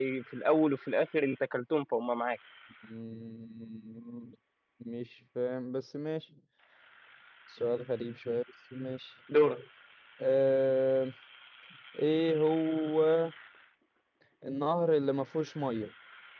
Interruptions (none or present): none